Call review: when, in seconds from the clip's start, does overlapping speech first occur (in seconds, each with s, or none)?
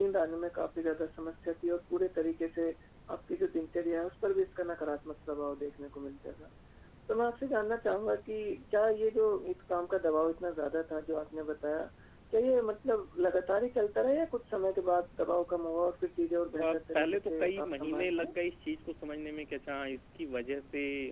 16.4 s